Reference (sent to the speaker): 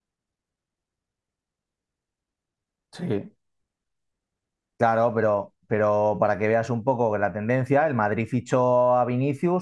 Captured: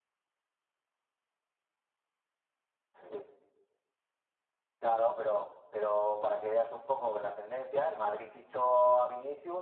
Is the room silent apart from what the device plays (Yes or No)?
Yes